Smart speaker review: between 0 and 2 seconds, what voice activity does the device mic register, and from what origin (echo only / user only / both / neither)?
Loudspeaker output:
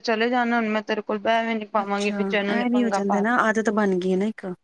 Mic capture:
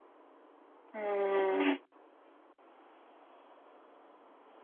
user only